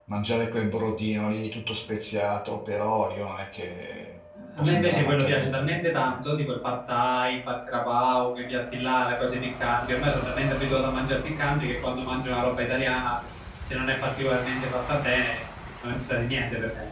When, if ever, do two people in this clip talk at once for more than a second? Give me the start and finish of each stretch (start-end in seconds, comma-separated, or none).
4.6-6.2